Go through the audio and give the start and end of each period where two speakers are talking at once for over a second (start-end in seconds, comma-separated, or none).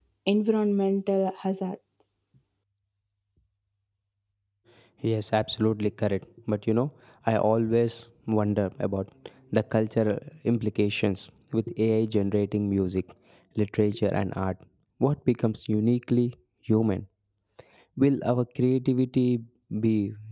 none